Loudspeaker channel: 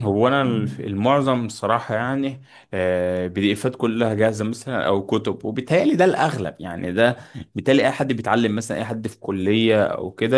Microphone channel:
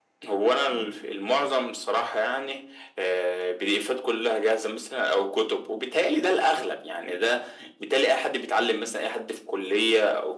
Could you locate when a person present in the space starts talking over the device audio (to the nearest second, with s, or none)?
none